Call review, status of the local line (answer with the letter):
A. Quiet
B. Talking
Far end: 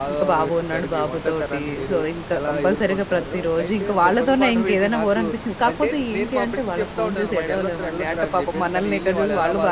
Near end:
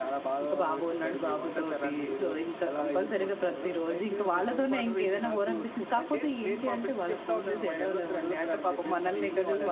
A